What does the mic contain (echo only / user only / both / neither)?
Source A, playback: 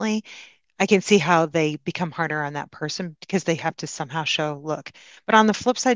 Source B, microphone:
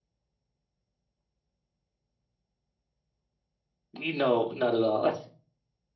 user only